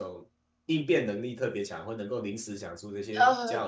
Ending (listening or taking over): taking over